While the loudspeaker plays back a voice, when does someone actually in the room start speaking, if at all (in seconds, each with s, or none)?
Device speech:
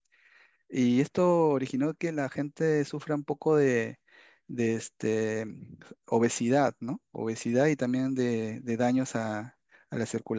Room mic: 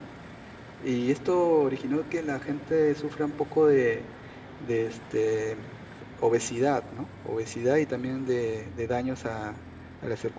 none